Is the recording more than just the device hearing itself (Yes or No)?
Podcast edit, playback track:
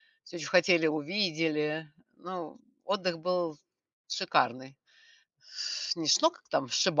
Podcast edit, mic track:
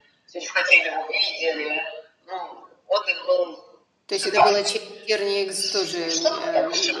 Yes